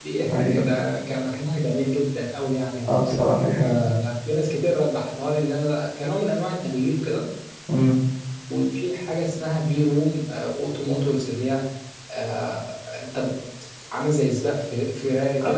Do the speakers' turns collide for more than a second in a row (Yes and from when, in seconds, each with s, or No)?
No